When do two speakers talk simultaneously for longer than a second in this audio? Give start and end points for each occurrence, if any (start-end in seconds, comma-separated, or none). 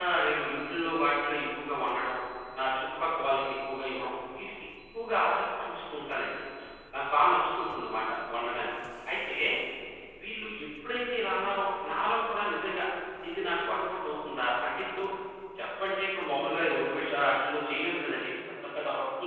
none